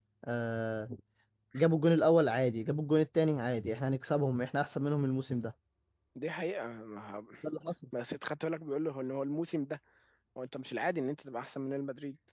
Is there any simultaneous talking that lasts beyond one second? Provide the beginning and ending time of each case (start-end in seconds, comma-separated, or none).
none